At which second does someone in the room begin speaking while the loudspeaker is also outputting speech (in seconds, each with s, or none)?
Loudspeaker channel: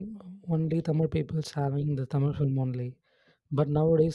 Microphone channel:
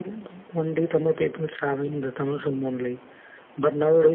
none